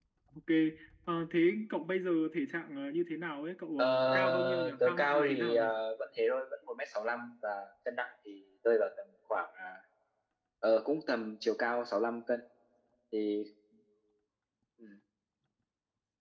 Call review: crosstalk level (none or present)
present